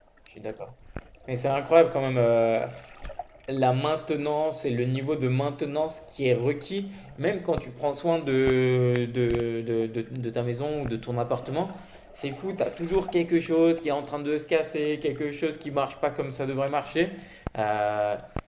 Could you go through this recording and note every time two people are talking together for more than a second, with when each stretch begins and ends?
none

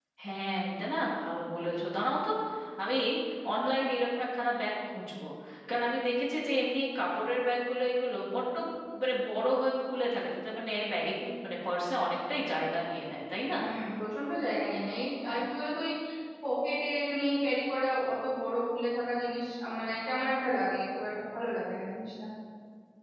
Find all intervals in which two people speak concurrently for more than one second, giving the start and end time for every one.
none

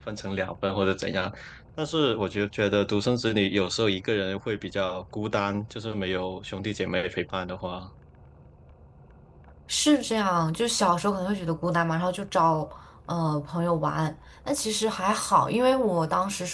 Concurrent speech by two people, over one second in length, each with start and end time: none

